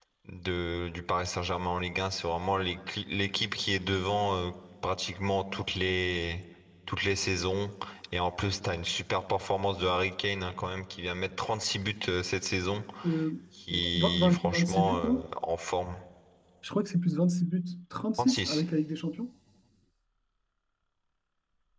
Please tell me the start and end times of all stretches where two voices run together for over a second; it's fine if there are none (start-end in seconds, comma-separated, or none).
13.9-15.2